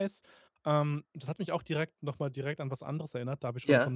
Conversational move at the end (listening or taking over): listening